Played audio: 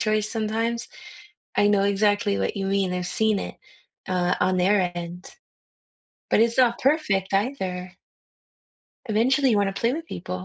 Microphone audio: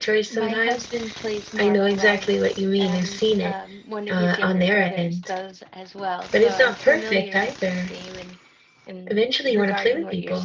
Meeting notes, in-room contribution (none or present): present